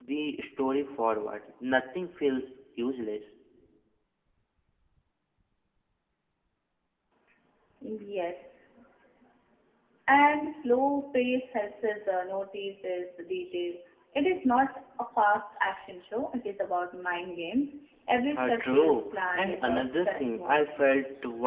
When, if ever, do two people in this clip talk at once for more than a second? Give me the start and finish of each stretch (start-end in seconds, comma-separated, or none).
18.4-20.6